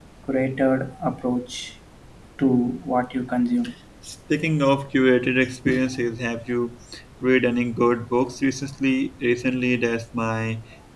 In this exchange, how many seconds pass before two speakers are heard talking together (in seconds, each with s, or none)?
none